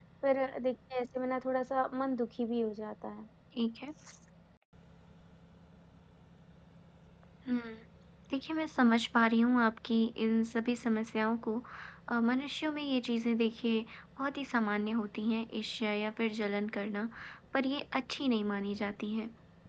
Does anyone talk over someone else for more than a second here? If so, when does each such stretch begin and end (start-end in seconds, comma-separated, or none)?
none